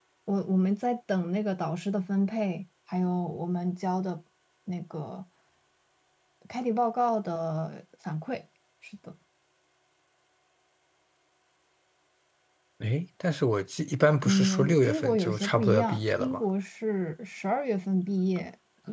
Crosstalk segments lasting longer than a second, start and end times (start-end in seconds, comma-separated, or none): 14.2-16.4